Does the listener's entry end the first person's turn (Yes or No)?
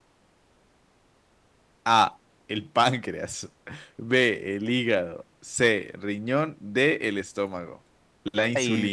Yes